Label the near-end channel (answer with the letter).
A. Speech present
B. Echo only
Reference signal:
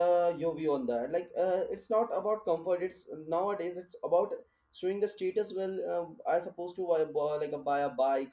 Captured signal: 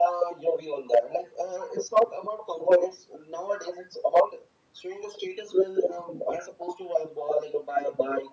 B